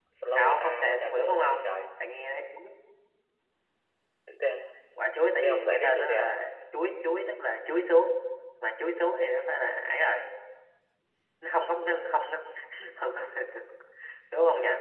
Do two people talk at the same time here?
Yes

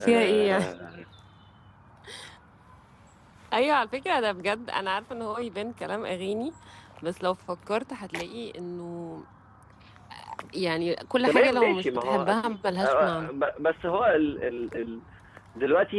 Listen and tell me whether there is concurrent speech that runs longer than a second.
Yes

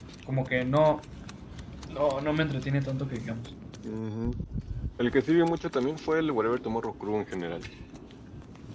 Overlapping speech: No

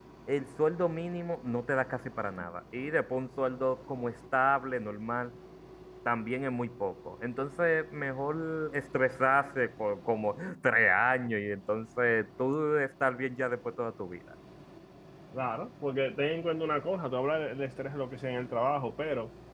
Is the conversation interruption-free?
Yes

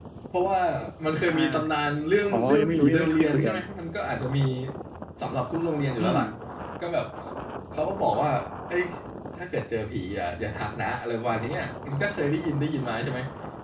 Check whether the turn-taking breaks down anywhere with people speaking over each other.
Yes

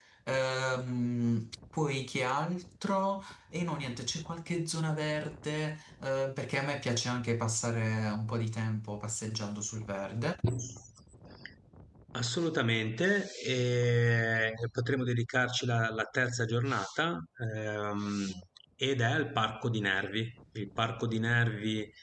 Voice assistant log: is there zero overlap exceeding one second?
Yes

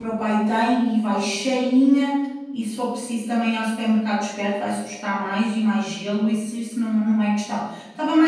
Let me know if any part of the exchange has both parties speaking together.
No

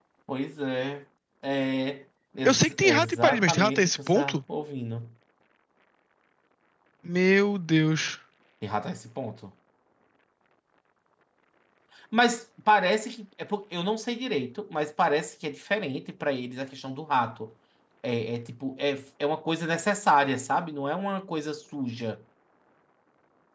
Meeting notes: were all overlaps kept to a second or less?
No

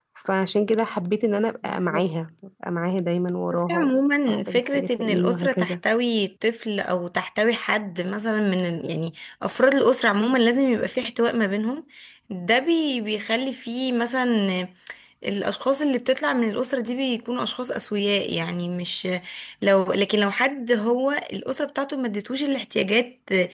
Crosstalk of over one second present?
Yes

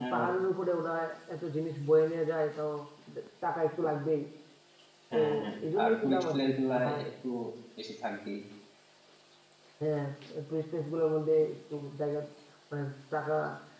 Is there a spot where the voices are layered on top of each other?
Yes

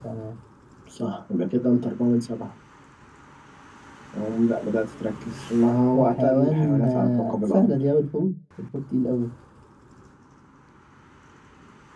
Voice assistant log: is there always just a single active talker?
No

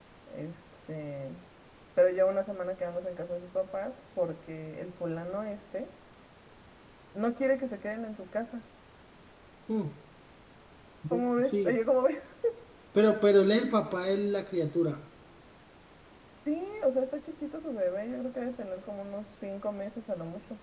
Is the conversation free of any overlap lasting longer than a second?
Yes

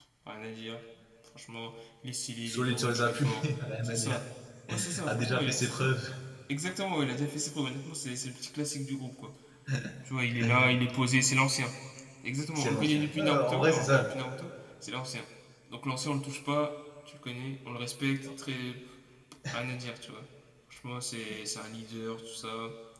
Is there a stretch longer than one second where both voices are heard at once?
Yes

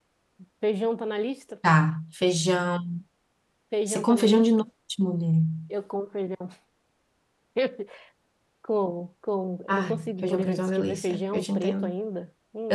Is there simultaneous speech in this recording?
Yes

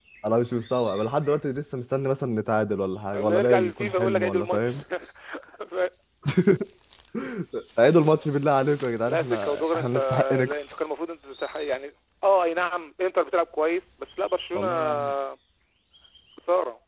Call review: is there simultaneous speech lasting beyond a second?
Yes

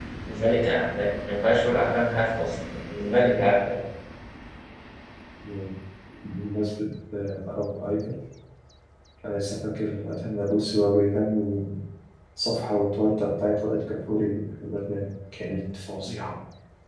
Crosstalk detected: No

